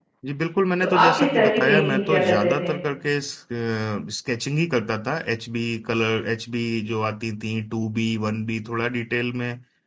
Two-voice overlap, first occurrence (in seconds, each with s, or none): 0.8 s